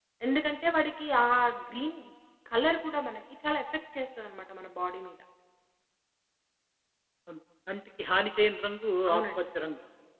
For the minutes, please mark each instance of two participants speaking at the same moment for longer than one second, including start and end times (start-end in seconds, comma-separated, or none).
none